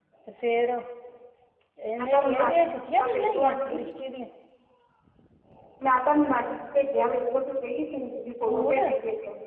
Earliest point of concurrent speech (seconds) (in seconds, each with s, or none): 2.0 s